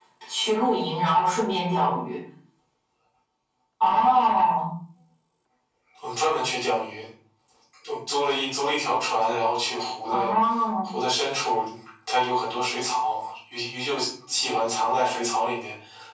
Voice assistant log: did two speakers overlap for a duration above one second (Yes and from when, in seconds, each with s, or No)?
No